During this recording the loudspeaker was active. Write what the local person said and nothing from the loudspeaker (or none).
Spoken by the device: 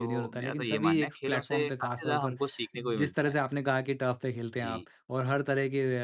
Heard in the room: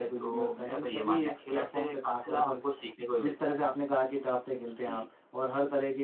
none